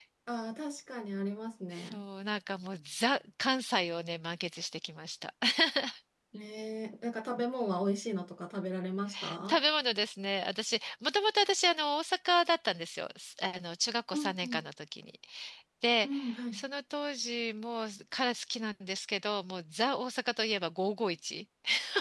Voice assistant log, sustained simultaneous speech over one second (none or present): none